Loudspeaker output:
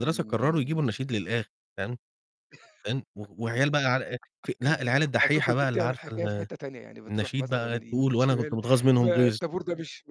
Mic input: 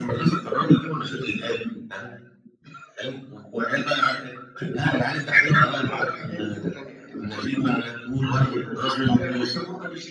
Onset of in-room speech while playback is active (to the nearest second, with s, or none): none